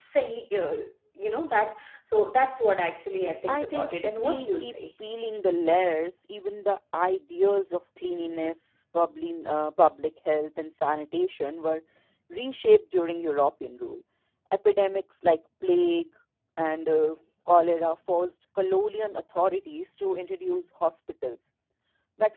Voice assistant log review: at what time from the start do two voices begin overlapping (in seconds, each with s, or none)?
3.5 s